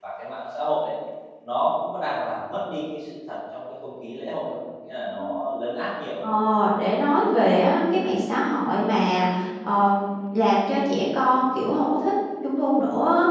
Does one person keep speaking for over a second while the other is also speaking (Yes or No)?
No